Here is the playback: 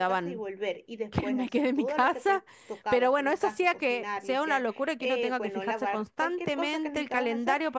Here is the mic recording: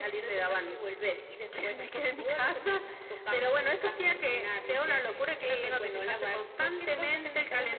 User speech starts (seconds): none

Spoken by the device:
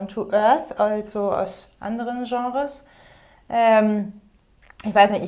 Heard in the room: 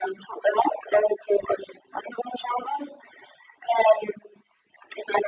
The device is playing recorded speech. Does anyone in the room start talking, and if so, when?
none

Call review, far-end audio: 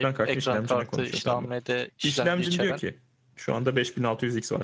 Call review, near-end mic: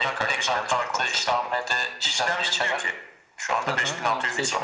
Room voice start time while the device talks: 4 s

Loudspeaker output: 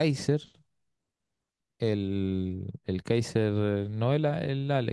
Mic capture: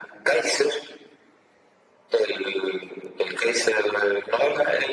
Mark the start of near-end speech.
none

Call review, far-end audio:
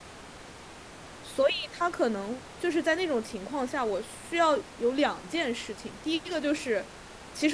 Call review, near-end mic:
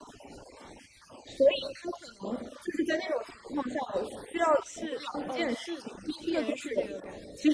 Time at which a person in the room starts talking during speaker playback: 5 s

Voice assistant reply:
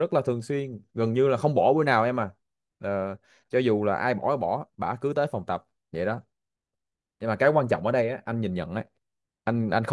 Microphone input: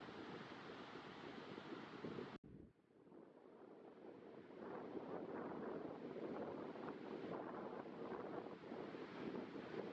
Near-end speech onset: none

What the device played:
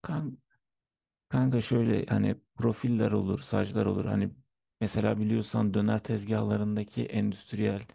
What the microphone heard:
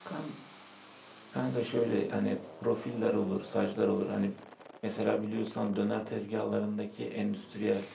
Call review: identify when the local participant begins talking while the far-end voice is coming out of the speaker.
none

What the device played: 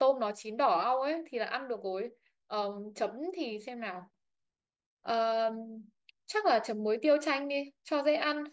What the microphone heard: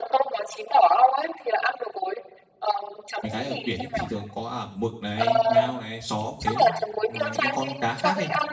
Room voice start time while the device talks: 3 s

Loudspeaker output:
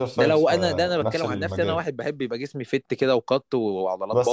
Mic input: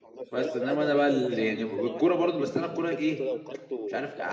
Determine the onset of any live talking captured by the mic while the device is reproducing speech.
0 s

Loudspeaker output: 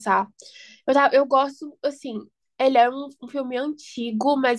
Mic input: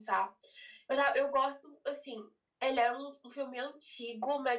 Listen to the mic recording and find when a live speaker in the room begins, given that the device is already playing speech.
none

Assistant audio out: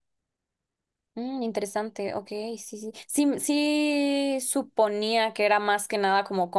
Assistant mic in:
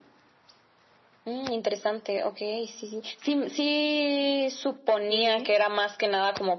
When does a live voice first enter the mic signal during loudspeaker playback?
5 s

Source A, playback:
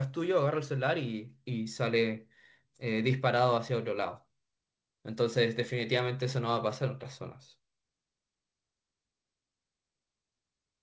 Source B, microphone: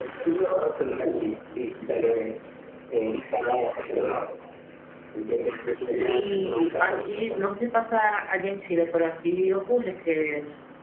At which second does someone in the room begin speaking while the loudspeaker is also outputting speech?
6 s

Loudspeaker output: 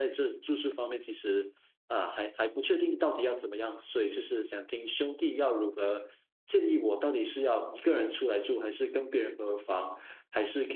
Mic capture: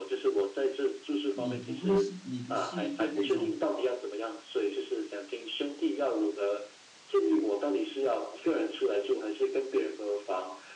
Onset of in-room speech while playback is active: 1 s

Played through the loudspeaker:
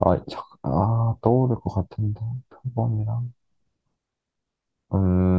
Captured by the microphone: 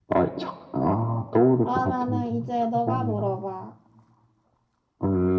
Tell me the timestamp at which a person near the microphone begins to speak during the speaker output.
2 s

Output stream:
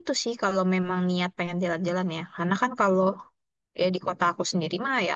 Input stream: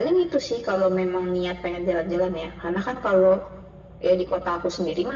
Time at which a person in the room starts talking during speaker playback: none

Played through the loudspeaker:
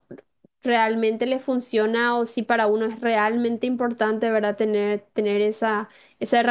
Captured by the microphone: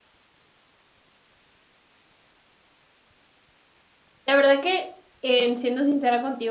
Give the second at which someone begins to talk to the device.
4 s

